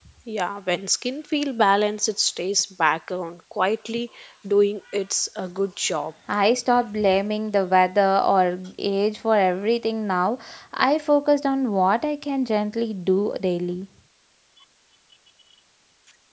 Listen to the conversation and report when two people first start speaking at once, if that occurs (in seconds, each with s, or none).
none